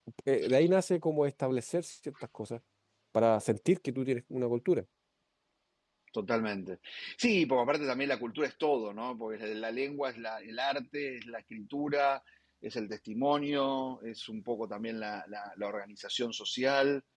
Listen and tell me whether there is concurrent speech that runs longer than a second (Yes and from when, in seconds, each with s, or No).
No